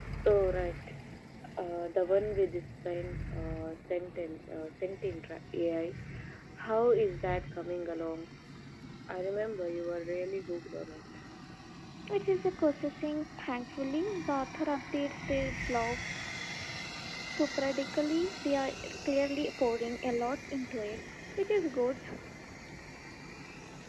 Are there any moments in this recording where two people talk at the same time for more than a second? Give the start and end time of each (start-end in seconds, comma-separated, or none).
none